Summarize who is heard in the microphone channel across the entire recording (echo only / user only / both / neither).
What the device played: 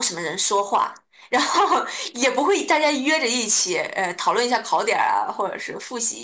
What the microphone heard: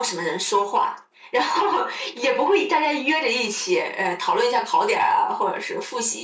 echo only